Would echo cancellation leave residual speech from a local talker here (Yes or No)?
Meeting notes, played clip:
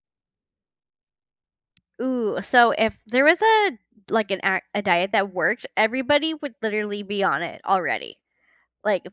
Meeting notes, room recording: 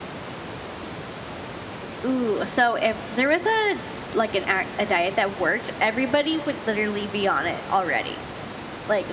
No